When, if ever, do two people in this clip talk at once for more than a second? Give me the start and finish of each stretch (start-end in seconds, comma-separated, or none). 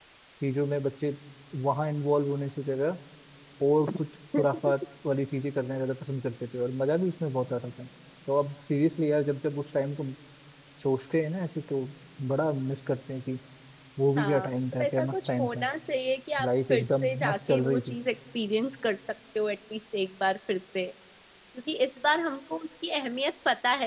14.2-15.6, 16.4-18.0